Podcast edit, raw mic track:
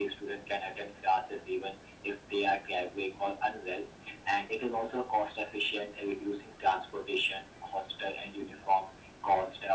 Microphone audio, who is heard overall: echo only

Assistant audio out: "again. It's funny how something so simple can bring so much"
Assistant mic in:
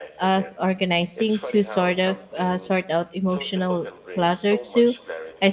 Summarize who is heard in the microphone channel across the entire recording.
both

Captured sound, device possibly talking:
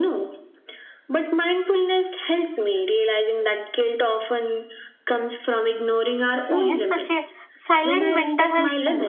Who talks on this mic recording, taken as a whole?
both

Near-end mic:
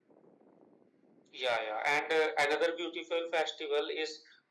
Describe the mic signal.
echo only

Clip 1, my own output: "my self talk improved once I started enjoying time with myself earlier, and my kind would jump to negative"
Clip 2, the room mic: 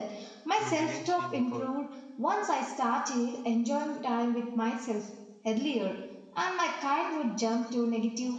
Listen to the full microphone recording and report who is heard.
both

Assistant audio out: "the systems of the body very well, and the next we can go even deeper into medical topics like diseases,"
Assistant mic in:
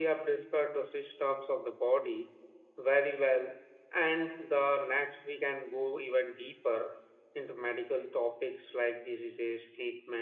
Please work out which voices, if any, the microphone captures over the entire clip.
echo only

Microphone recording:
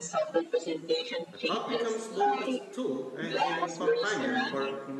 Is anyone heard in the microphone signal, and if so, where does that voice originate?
both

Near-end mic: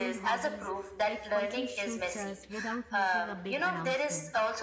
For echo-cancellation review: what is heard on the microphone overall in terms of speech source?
both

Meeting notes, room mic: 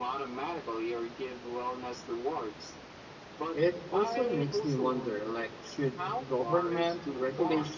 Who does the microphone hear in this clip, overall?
both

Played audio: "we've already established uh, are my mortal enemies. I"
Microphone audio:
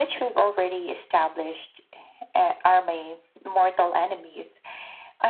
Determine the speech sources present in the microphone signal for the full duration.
echo only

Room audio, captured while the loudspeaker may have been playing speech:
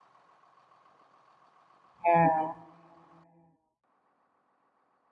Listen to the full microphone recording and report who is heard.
user only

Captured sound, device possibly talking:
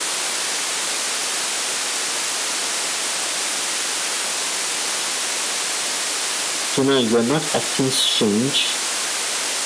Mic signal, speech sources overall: user only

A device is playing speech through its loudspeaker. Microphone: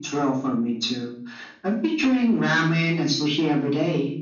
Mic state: echo only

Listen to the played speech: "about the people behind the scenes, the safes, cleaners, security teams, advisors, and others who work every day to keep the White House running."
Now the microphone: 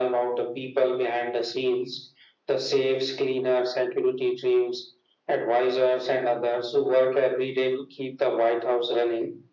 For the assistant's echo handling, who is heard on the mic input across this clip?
echo only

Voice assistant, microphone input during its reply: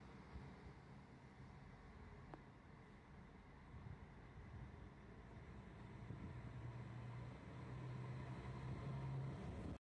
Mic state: neither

